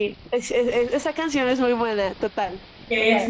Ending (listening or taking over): taking over